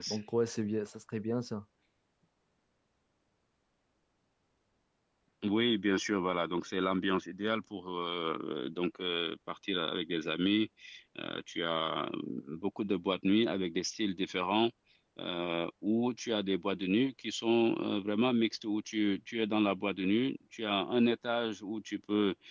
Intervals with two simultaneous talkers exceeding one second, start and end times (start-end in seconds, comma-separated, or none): none